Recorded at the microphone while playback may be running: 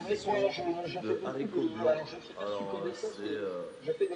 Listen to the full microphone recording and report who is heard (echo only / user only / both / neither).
both